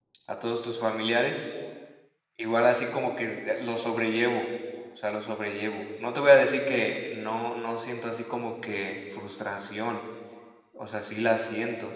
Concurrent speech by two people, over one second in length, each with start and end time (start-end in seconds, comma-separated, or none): none